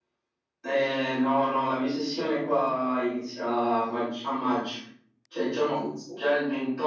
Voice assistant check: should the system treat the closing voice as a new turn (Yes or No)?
No